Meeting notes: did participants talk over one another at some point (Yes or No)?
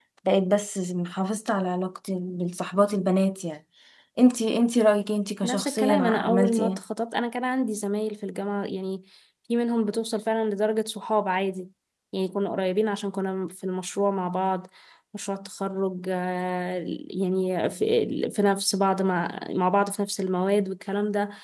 Yes